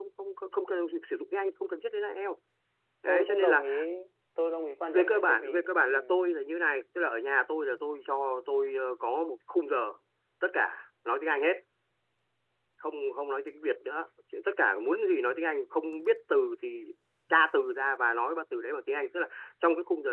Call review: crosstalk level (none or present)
present